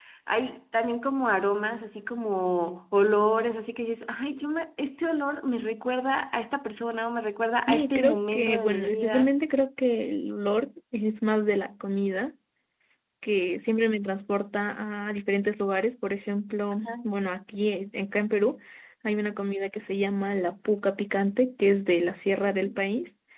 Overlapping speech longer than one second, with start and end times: 7.7-9.3

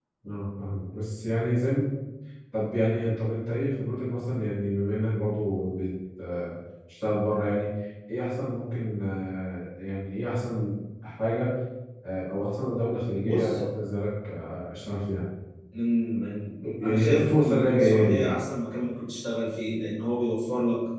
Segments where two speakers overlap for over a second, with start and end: 16.8-18.4

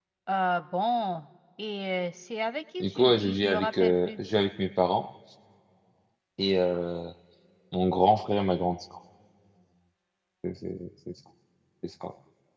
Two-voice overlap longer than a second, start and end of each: 2.8-4.1

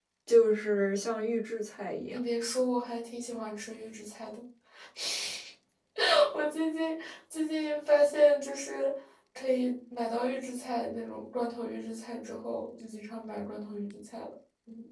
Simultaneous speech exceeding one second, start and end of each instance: none

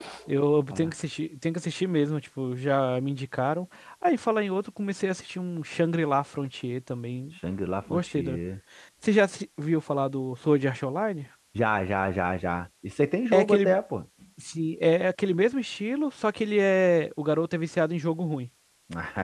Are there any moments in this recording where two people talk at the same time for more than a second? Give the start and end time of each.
none

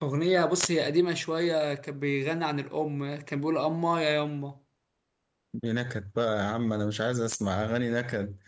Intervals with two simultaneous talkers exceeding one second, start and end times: none

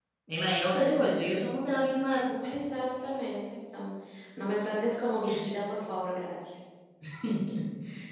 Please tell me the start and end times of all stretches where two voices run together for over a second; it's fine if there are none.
none

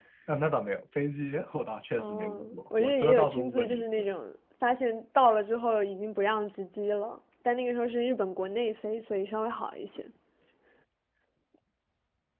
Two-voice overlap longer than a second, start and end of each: 2.0-3.8

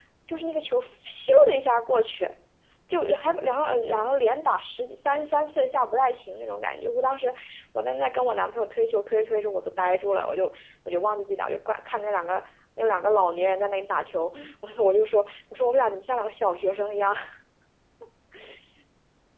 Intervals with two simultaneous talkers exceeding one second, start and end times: none

